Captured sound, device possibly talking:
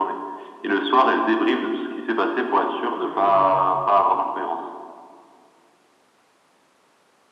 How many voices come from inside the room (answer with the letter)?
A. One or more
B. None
A